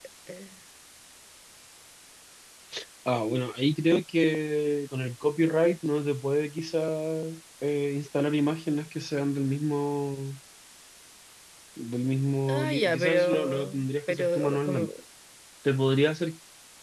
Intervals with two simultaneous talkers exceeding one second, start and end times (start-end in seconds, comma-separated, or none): 12.5-14.9